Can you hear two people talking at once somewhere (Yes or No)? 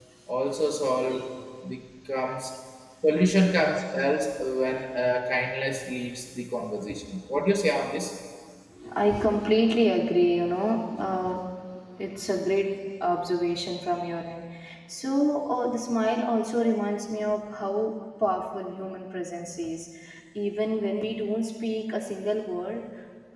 No